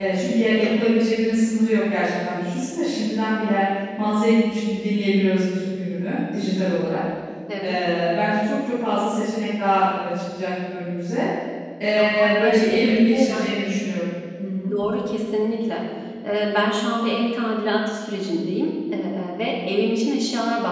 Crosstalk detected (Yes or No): Yes